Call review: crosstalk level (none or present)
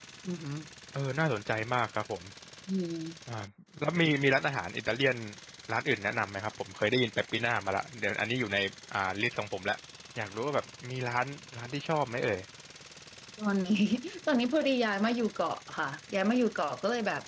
none